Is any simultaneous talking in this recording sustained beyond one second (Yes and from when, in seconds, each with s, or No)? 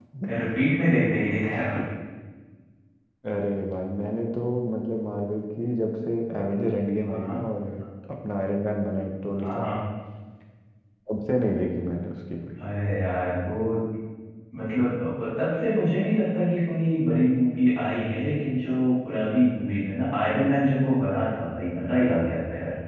No